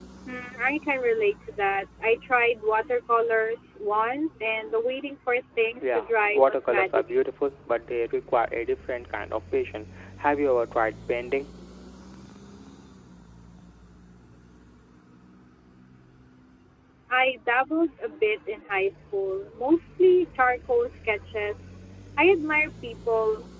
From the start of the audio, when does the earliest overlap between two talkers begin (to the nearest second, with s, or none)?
6 s